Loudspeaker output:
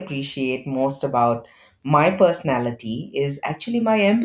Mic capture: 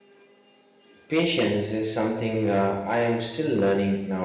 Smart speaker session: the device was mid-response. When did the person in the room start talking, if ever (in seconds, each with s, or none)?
1.1 s